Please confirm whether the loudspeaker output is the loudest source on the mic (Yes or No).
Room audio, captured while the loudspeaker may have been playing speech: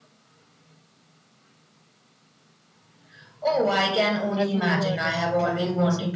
Yes